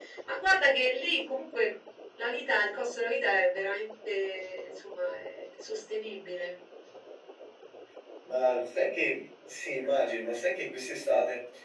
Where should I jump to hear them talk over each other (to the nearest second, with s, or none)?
none